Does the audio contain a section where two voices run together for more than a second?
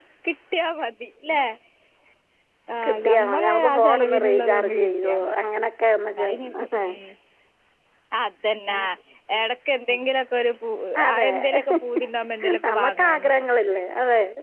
Yes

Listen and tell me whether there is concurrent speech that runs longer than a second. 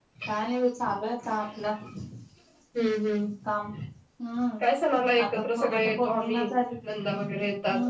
Yes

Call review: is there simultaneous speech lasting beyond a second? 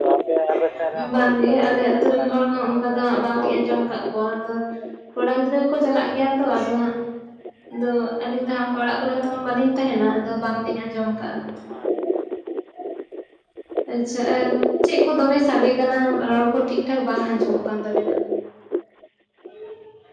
Yes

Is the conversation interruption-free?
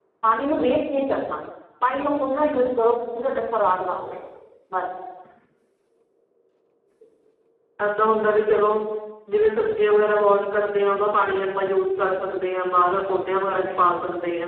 Yes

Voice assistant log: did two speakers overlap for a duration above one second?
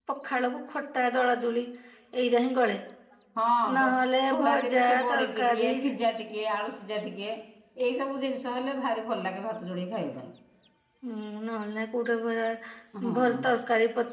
Yes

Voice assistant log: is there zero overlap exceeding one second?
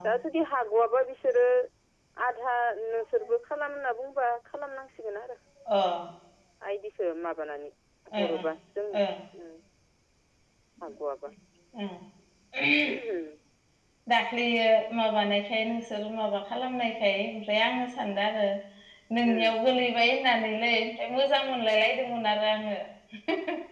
Yes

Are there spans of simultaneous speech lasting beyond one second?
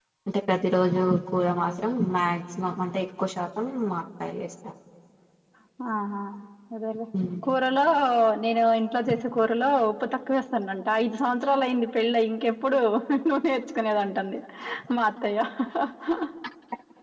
No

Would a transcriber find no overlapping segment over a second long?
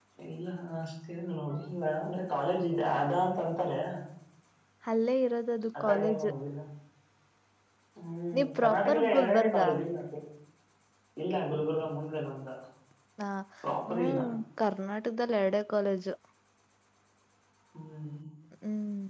No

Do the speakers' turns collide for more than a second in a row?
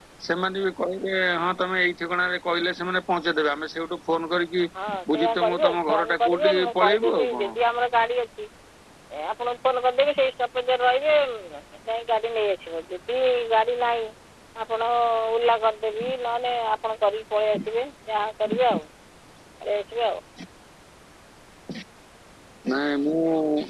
Yes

